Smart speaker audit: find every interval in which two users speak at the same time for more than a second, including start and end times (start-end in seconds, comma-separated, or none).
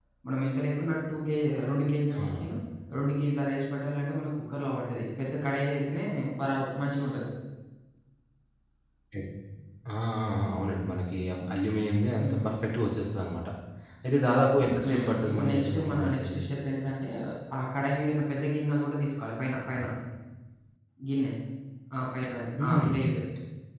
14.8-16.4